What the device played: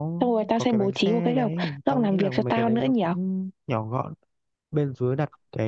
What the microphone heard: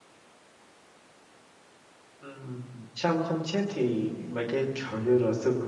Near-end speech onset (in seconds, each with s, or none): 2.2 s